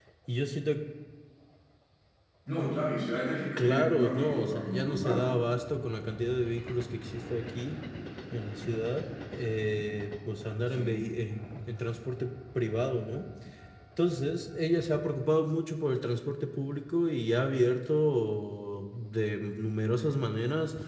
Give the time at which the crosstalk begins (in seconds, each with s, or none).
3.6 s